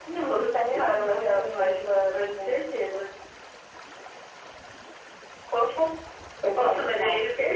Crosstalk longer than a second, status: present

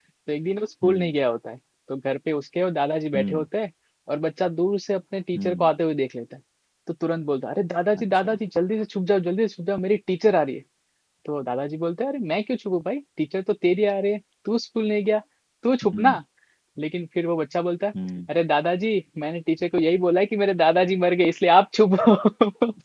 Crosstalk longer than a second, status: none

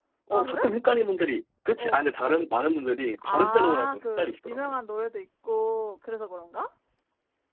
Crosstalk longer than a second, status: present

